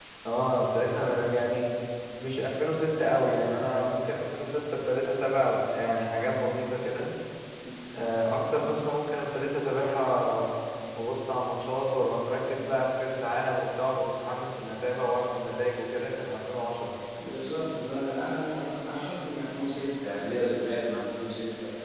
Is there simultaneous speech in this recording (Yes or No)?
No